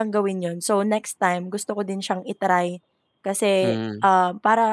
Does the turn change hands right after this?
No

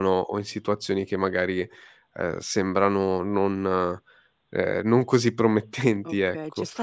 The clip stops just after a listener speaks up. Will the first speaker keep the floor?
No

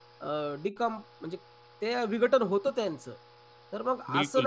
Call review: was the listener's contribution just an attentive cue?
Yes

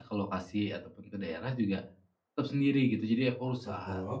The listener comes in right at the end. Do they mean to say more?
No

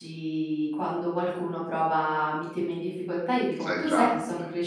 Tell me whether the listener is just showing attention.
Yes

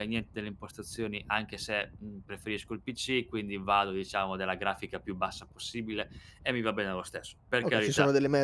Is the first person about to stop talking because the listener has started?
Yes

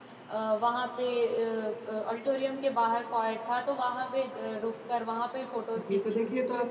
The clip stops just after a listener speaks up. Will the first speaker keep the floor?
No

